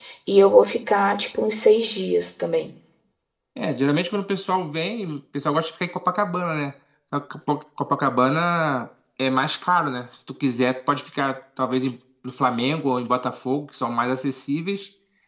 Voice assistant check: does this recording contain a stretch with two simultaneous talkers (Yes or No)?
No